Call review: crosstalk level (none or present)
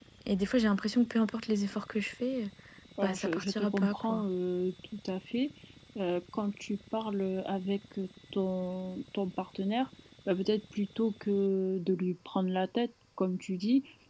present